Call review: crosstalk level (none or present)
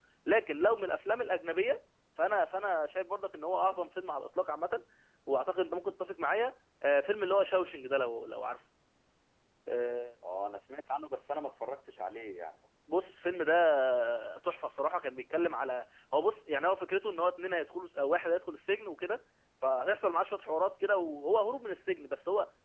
none